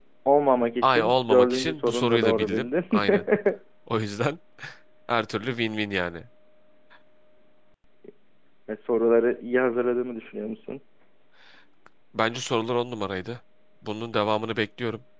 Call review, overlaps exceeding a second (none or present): present